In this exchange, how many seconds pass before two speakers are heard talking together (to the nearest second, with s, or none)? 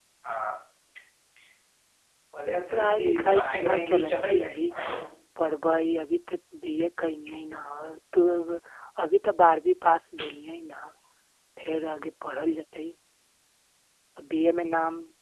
3 s